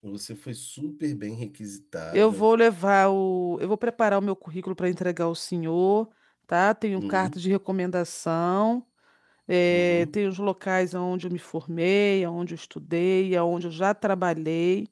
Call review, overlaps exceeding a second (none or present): none